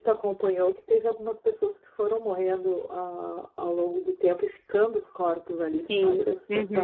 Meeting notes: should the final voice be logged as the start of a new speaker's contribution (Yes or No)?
Yes